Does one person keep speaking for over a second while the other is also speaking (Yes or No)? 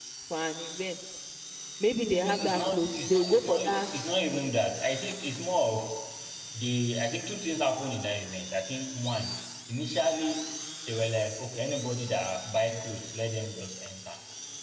Yes